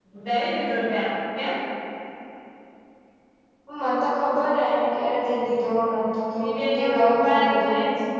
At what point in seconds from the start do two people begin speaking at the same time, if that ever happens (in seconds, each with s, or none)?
6.4 s